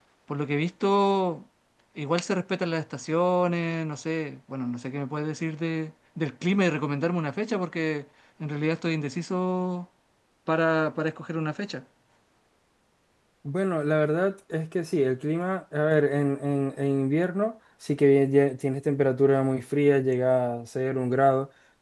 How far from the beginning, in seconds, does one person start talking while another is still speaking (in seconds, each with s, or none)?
none